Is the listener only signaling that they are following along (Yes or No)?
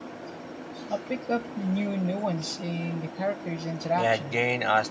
No